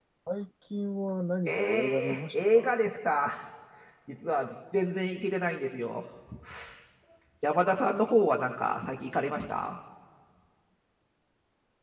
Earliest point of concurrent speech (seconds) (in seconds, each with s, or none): 1.4 s